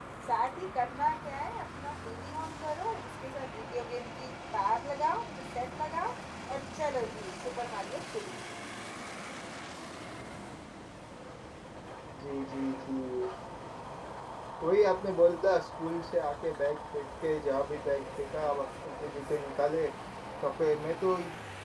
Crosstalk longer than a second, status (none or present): none